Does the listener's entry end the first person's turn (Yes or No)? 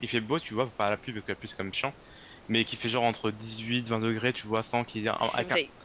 No